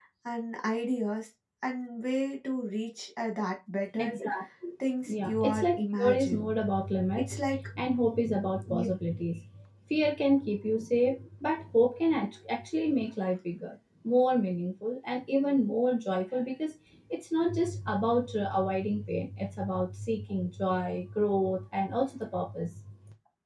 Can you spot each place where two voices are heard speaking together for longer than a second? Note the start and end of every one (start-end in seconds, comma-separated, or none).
5.1-6.5